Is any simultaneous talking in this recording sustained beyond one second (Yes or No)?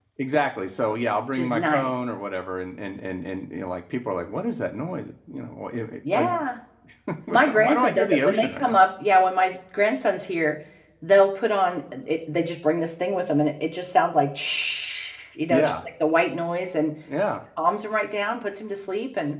Yes